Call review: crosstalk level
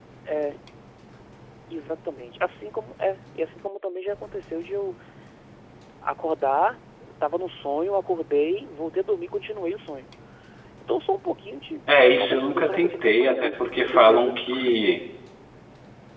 present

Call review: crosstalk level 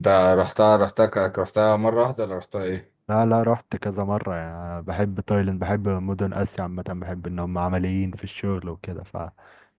none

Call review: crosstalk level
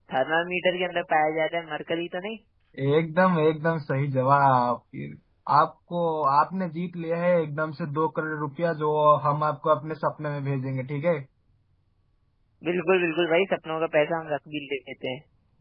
none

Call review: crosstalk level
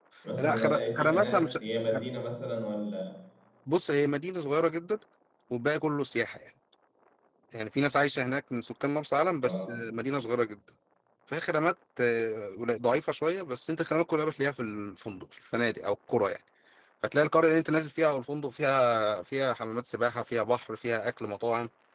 present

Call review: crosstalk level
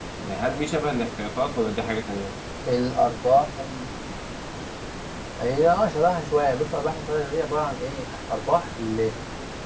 none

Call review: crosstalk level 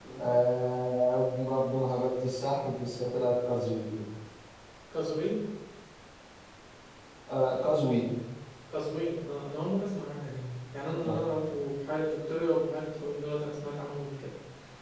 none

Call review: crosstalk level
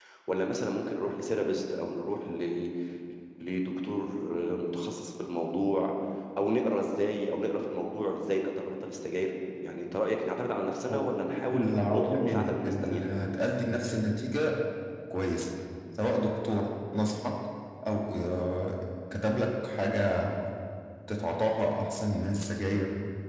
present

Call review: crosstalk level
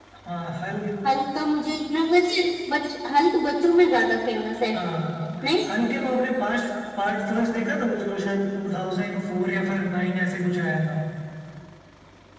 none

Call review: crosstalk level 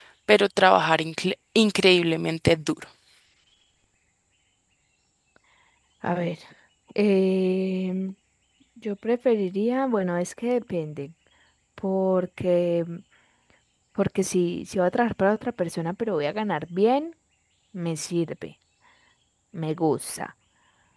none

